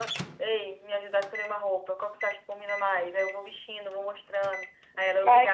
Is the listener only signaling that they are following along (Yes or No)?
No